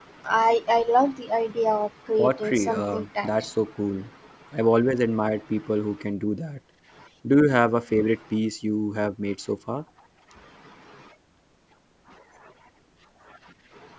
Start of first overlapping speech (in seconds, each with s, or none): 2.2 s